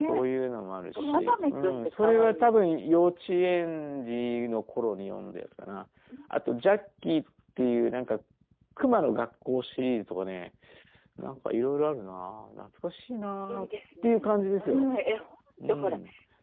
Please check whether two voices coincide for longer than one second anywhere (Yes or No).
Yes